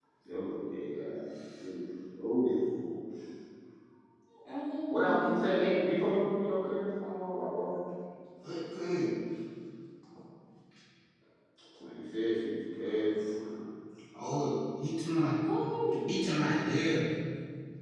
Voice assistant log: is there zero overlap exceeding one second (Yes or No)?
Yes